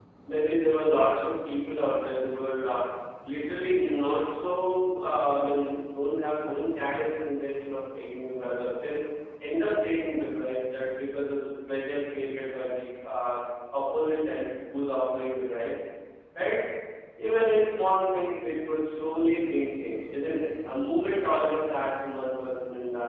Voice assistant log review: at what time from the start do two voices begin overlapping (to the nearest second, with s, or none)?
none